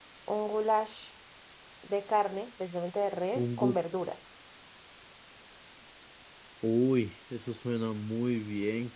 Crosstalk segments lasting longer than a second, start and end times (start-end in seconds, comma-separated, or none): none